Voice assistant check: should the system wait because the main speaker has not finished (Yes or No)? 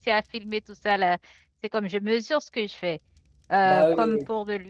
Yes